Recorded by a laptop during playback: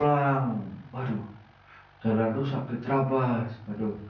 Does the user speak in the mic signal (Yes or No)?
Yes